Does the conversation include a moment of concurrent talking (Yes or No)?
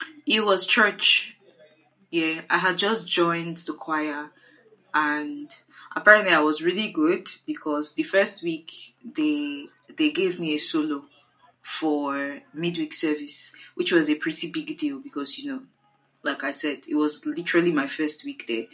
No